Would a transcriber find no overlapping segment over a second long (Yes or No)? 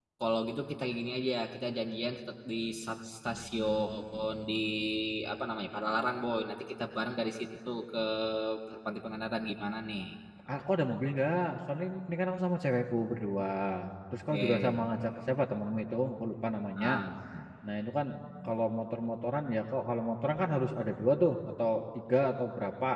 Yes